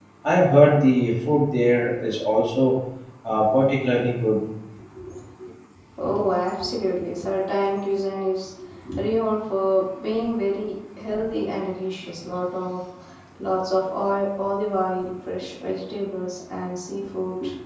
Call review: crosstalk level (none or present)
none